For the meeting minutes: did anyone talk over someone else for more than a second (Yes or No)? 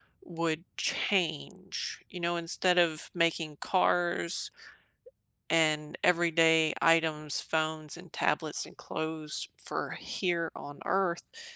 No